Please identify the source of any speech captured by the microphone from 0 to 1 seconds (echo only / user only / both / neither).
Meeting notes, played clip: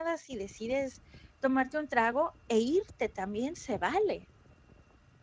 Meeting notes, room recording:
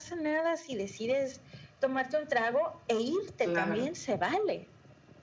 echo only